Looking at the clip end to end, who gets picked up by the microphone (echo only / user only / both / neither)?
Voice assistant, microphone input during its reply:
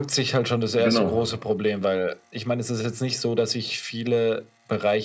both